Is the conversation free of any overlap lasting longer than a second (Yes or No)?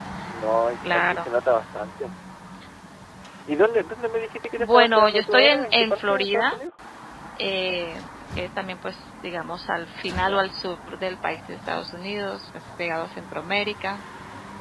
No